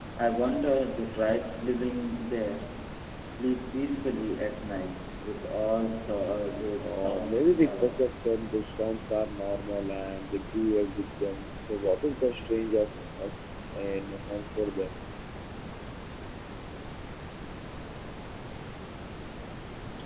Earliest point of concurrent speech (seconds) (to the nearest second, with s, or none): 7 s